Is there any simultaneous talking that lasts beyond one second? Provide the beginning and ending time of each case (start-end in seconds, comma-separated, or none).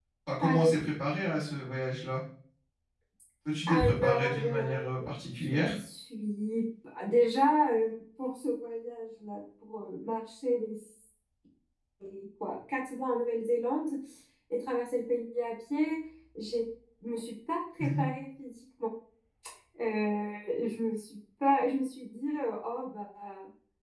3.7-4.9